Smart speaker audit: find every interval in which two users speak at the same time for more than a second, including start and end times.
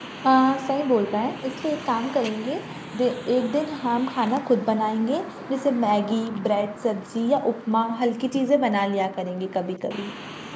none

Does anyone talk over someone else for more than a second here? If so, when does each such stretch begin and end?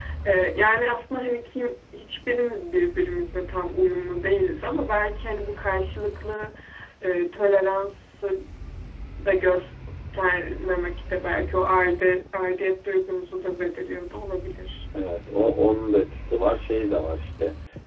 none

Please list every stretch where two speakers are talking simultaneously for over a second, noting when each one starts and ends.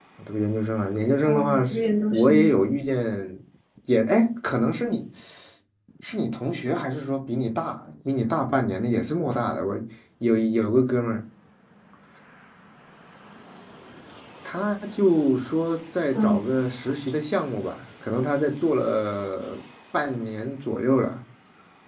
1.2-2.5

